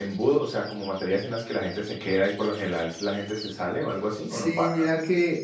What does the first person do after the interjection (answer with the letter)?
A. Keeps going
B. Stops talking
B